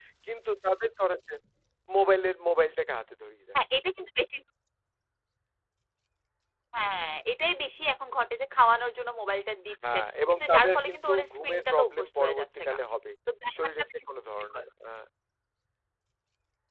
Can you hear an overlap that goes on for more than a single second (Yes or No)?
Yes